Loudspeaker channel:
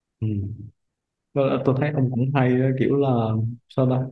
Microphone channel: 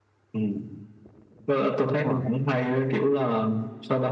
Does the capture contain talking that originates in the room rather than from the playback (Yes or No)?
Yes